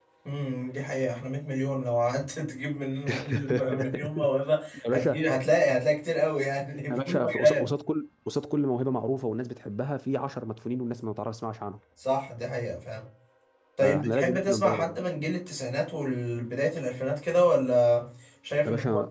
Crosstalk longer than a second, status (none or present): present